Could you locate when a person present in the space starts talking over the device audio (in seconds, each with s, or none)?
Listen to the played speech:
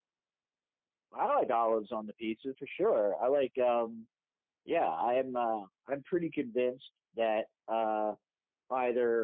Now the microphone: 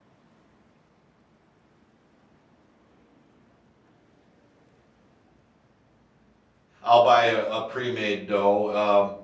6.8 s